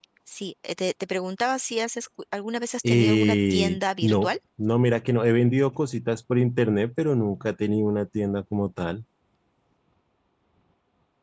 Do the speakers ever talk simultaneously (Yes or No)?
Yes